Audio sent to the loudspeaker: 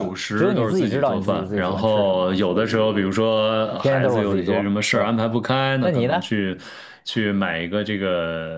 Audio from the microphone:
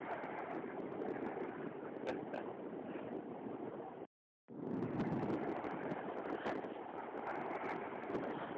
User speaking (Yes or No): No